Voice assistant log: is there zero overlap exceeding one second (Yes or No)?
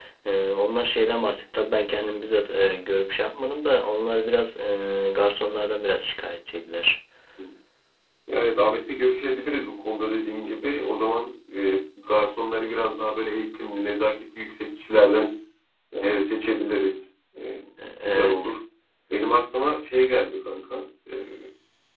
Yes